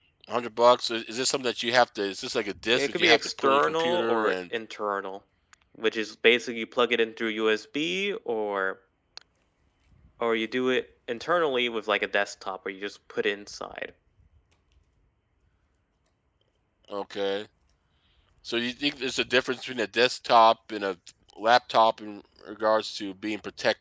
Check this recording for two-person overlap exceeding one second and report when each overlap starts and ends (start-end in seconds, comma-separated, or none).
2.7-4.3